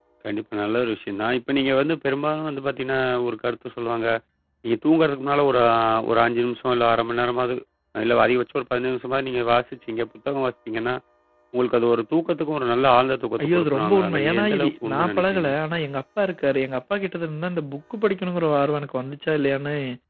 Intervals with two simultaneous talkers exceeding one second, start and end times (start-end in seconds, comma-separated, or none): 13.4-15.5